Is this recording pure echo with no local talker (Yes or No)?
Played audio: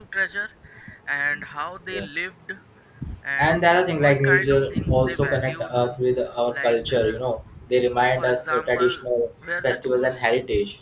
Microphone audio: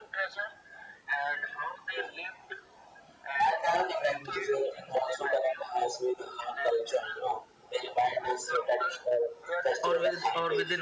No